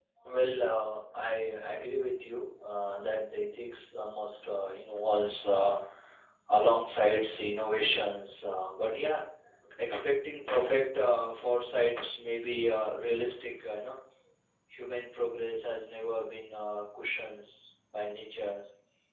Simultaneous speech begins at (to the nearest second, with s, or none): none